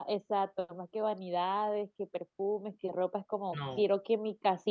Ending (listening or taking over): listening